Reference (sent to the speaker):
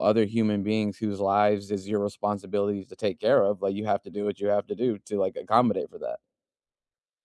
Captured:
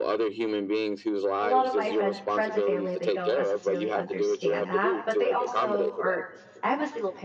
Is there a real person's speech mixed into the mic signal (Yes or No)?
Yes